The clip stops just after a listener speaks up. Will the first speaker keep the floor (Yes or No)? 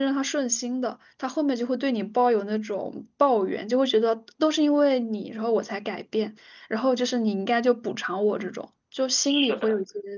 No